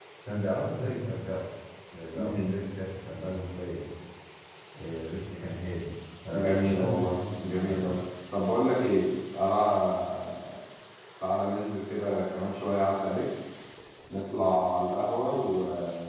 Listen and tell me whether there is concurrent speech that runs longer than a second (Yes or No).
Yes